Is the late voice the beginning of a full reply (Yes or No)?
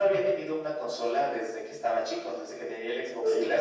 No